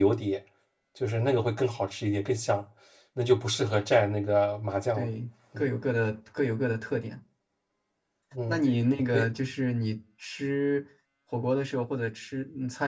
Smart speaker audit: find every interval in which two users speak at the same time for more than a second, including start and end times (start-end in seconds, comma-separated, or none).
none